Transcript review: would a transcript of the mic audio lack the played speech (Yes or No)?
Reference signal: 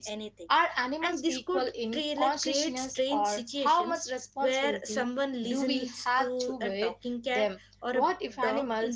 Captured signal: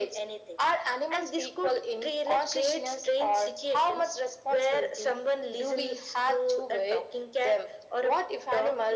No